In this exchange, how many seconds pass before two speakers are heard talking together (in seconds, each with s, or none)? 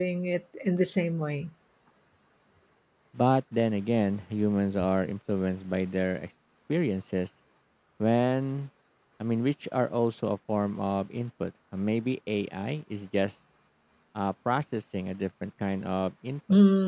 none